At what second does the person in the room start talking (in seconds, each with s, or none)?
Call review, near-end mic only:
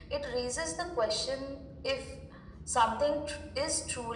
none